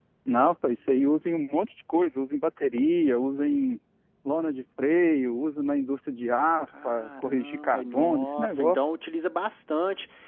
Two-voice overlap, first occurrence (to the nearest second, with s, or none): 7 s